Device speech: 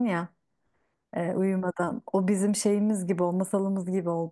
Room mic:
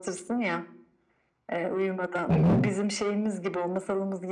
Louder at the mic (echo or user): user